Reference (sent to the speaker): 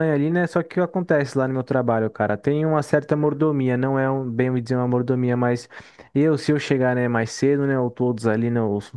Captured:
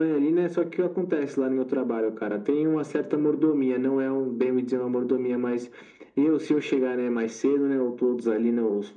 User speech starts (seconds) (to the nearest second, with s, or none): none